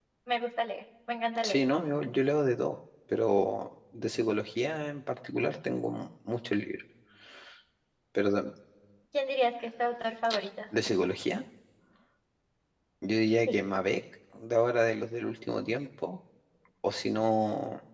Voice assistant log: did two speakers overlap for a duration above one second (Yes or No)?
No